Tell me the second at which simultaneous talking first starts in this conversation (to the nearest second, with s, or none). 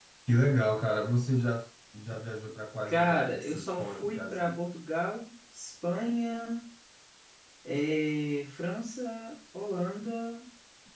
3 s